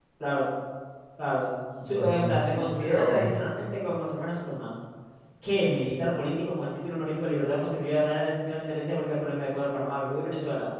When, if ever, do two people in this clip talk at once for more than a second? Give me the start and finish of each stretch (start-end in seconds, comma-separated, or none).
1.8-3.3